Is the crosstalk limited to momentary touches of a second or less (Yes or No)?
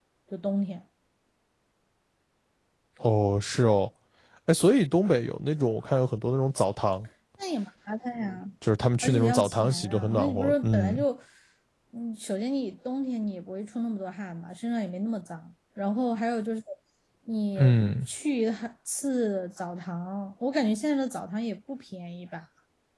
No